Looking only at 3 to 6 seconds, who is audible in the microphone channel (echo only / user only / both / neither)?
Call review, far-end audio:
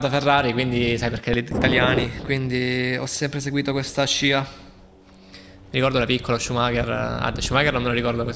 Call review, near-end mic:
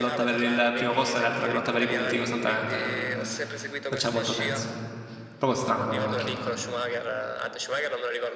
both